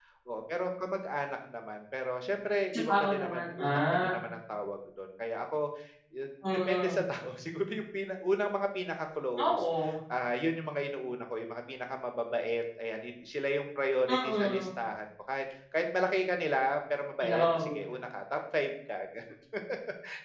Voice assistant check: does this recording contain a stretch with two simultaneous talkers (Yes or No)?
Yes